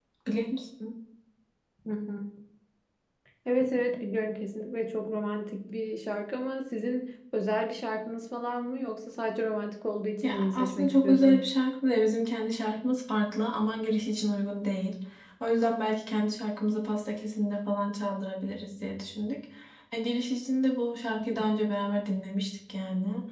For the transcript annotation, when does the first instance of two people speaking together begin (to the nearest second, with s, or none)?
10 s